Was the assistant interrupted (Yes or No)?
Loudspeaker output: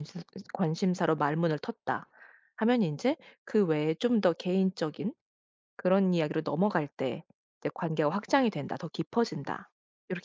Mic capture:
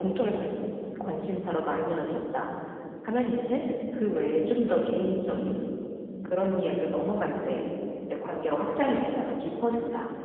No